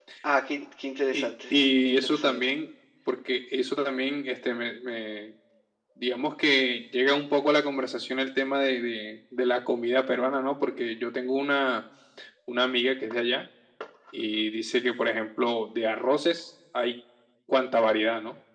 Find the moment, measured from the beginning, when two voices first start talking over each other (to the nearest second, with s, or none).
1 s